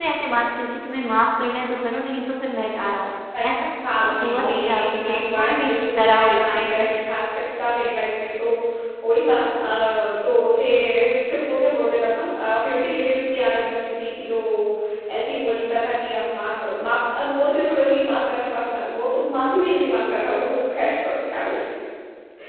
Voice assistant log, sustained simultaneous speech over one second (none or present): present